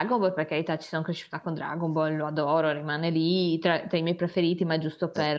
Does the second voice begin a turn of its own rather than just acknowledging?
Yes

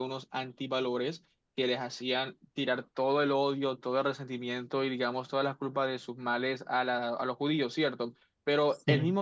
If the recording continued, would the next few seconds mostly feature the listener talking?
No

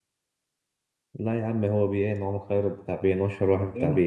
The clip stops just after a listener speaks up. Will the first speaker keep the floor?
No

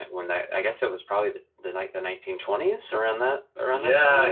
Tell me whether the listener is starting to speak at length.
Yes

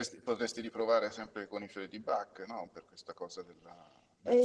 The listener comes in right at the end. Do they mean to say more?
Yes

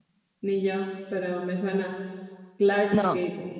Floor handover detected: Yes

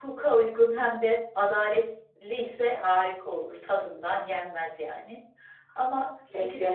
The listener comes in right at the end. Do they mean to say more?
No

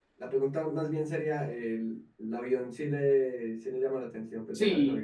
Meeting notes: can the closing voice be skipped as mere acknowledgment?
No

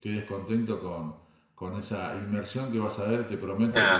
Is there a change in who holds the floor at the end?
Yes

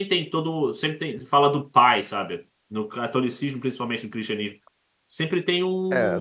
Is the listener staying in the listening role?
No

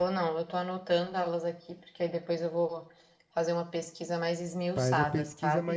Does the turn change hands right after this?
Yes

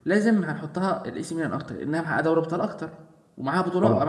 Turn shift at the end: No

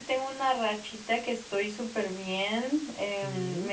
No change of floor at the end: Yes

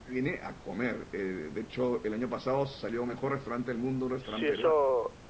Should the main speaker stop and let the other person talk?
Yes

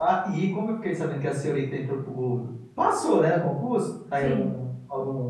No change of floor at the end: Yes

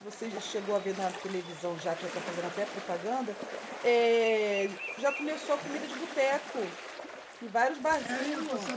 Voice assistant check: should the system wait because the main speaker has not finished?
No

